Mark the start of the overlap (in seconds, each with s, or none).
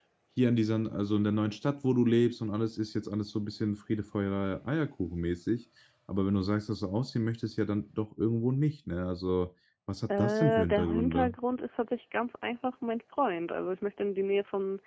10.1 s